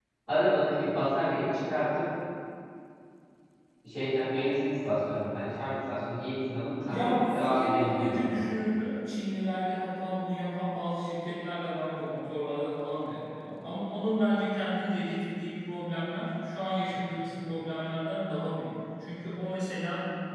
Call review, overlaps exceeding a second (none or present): present